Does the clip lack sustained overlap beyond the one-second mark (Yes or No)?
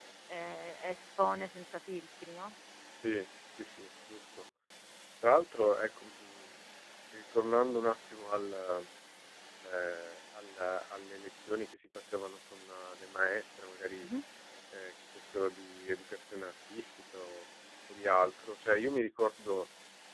Yes